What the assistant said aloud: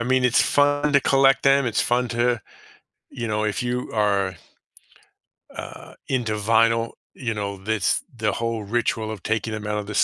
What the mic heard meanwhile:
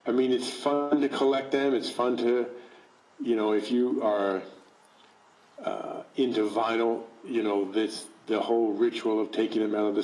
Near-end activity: none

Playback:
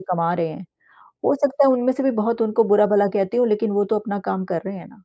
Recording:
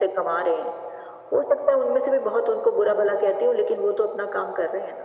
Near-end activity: none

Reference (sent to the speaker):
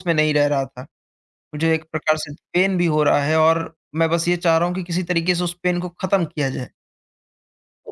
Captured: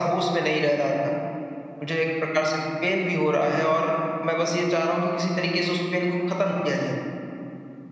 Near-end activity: none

